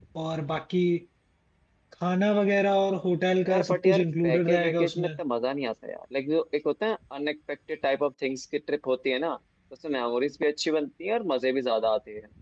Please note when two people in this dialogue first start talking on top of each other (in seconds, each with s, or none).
3.4 s